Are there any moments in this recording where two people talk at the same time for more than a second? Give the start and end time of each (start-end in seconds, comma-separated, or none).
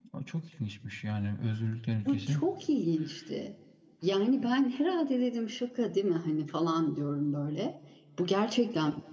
none